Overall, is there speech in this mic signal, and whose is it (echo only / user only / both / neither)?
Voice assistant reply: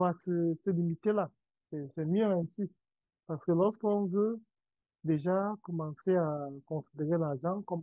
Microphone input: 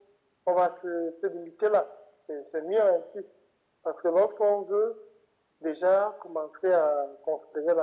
echo only